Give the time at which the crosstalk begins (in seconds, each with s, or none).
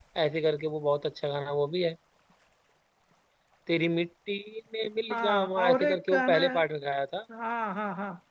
5.1 s